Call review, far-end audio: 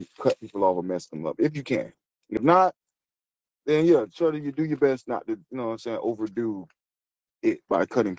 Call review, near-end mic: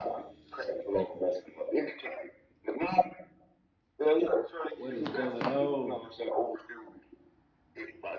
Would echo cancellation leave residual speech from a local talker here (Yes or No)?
Yes